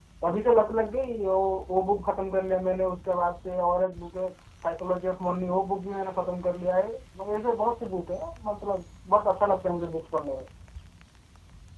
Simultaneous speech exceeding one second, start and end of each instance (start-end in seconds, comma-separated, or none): none